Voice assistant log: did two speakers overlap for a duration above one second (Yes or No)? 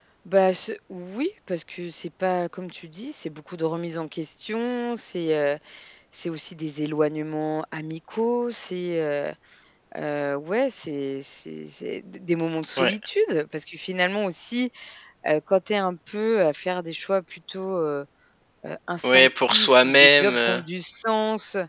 Yes